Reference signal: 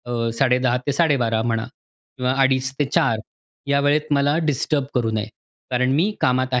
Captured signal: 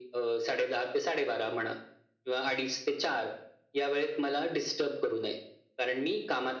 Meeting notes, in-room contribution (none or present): none